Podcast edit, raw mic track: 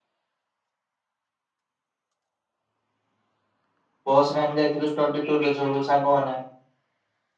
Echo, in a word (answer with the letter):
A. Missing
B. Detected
A